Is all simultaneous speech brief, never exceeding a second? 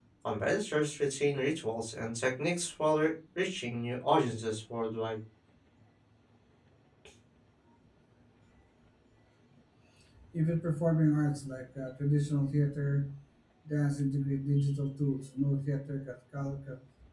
Yes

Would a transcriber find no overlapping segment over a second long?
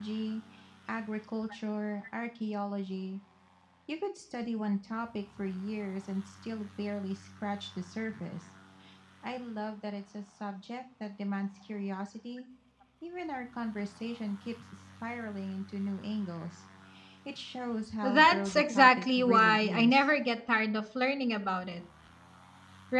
No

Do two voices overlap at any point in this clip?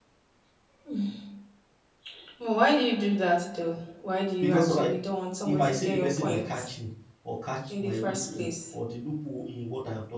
Yes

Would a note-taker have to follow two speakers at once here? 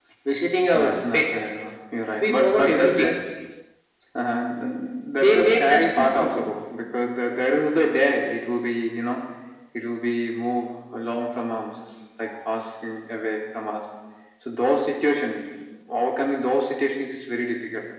Yes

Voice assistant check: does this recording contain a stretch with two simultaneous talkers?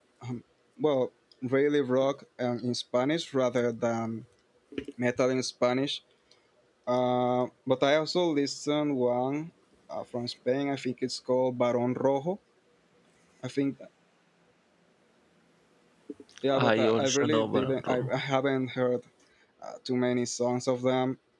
Yes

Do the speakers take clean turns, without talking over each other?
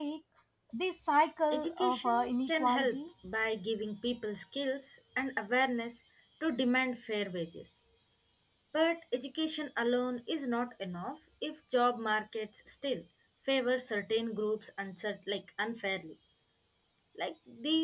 No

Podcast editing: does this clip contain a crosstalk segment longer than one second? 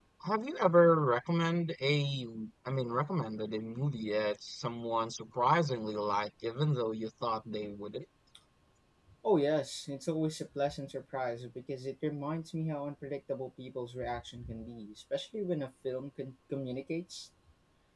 No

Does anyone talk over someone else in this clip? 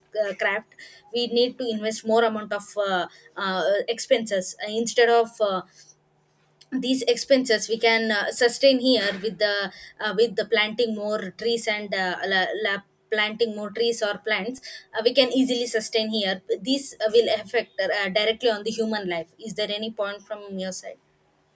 No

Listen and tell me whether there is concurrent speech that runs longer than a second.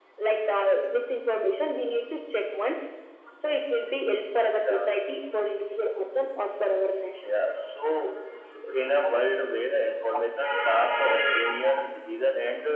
No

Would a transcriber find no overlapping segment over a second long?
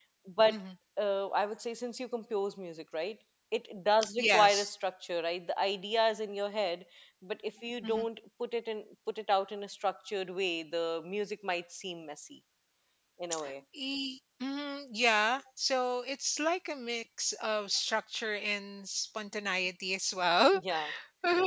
Yes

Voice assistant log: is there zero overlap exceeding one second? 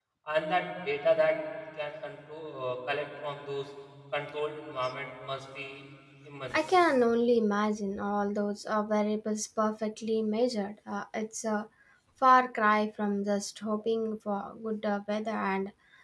Yes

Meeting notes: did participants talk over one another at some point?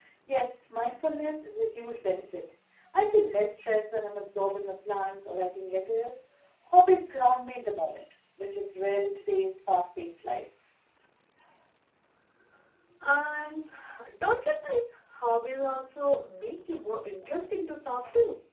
No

